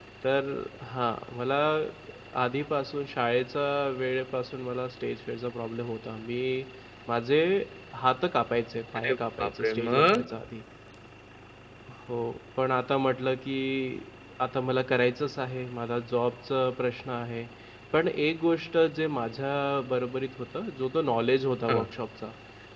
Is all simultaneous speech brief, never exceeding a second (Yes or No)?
No